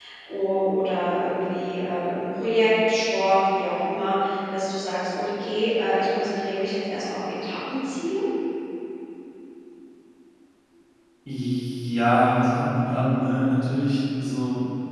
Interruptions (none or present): none